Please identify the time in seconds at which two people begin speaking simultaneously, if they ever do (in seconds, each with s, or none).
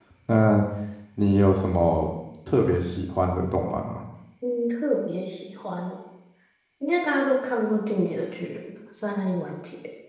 none